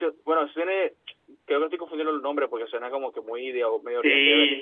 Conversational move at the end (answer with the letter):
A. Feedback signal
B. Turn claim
B